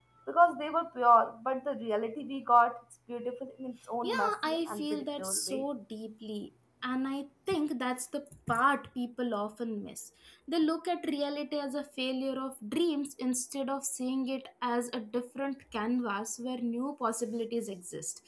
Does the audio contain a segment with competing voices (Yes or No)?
Yes